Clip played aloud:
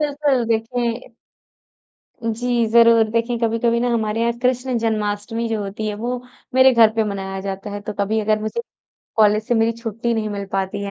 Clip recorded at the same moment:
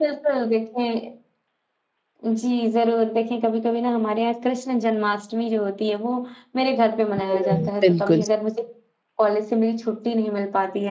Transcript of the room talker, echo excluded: हुँ, बिल्कुल।

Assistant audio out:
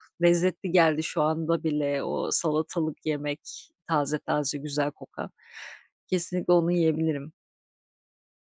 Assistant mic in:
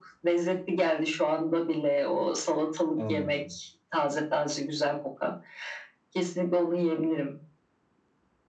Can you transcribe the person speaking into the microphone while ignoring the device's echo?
Anladım.

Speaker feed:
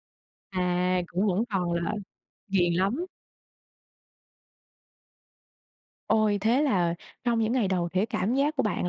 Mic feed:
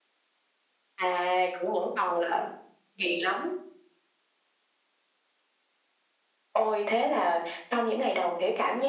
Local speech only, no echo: none

